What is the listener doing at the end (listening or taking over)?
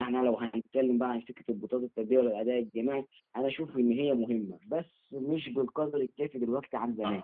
taking over